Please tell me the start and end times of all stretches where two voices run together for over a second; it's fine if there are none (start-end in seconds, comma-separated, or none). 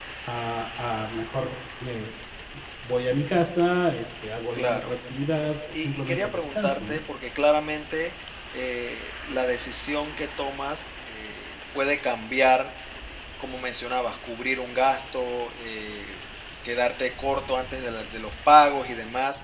5.7-7.0